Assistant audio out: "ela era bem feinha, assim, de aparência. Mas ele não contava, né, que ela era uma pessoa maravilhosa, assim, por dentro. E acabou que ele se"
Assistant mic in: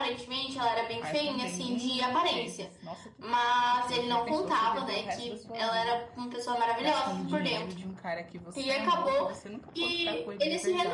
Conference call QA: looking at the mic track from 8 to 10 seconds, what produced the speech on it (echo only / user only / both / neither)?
both